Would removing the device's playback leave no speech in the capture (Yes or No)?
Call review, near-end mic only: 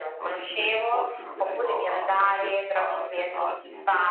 No